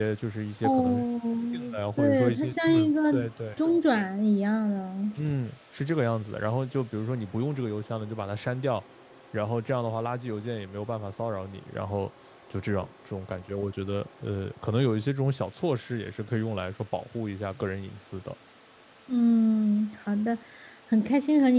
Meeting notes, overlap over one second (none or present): present